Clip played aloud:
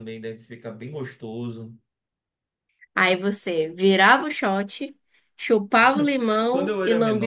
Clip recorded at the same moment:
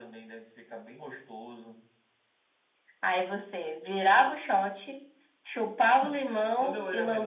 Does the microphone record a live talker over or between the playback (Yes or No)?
No